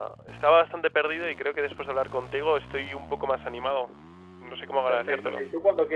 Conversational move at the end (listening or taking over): taking over